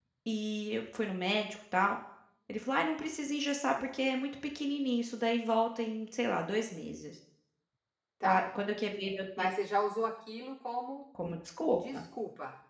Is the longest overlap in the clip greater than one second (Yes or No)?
No